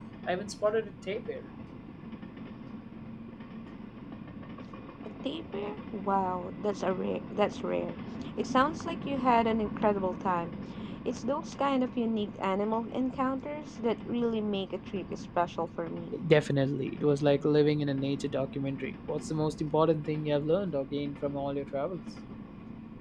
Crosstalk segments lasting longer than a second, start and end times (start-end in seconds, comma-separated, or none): none